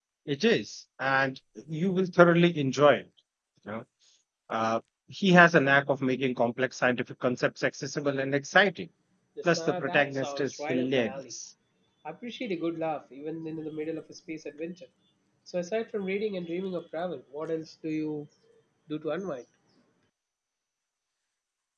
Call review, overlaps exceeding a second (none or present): present